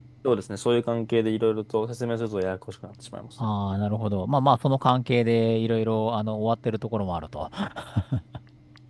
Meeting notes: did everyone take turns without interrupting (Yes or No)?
Yes